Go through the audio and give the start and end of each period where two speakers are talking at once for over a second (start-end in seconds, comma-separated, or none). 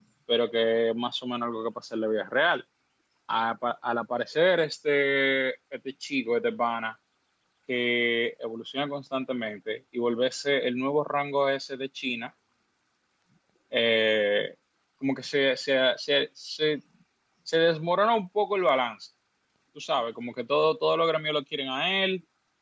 none